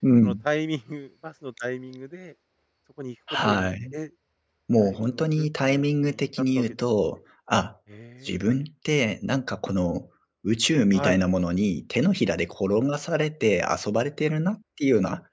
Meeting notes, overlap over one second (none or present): present